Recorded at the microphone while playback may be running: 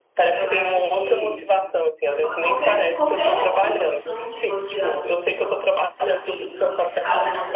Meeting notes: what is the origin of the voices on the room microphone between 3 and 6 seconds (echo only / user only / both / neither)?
both